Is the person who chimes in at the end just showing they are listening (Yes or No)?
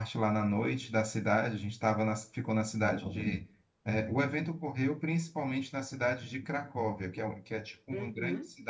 Yes